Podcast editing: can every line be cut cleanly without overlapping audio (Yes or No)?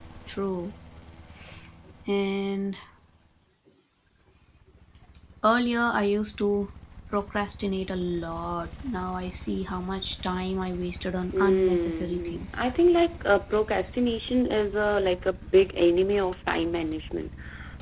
No